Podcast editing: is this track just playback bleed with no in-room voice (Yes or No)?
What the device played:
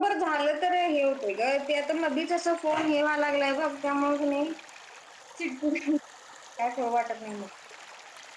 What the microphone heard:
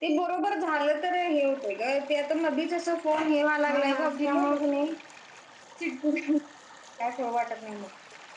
No